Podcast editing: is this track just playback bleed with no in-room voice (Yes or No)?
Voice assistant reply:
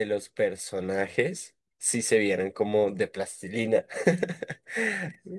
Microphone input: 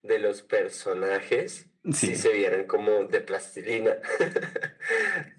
No